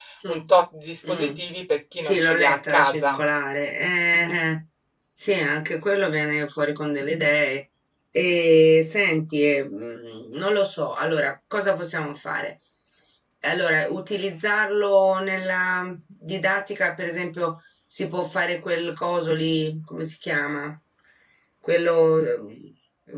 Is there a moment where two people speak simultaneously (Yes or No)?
Yes